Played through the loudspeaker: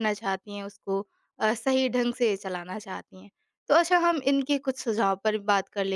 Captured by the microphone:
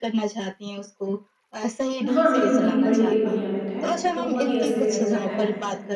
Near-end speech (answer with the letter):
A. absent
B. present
B